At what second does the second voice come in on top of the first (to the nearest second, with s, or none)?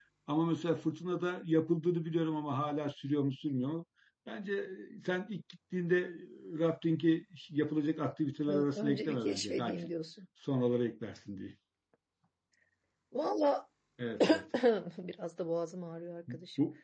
8 s